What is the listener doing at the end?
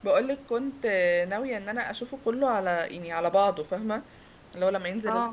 listening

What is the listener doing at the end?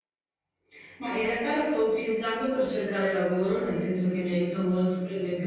listening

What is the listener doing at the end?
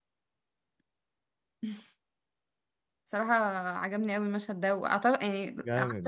taking over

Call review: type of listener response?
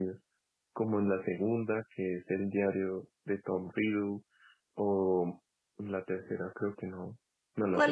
taking over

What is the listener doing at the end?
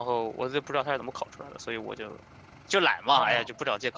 taking over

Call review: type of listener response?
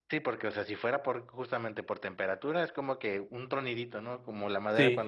listening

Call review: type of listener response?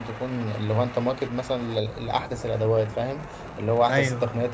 listening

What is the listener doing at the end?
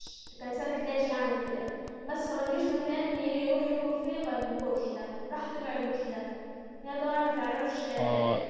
taking over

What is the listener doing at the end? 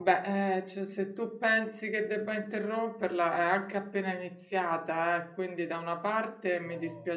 listening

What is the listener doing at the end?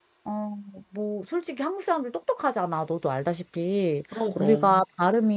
listening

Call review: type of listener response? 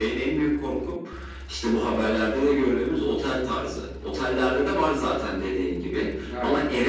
listening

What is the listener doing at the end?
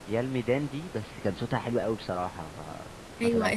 taking over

